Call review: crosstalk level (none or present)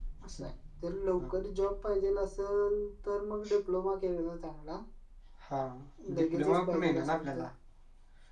present